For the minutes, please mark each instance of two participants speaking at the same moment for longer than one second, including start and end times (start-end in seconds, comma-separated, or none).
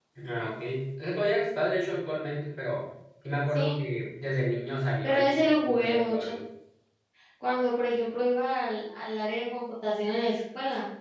5.0-6.3